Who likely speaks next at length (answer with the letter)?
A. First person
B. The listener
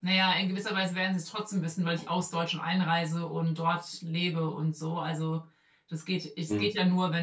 A